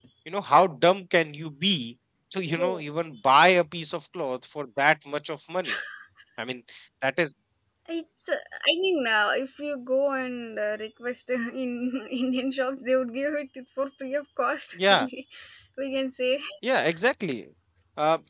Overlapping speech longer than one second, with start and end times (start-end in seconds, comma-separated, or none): none